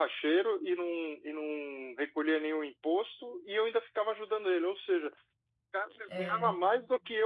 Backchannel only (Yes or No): Yes